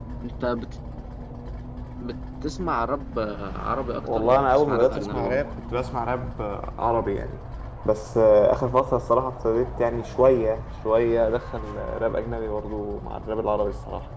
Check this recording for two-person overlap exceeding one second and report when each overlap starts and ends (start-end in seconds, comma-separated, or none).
4.0-5.4